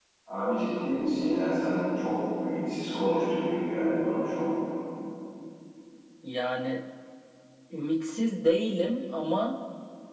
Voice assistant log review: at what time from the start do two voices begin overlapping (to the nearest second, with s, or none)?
none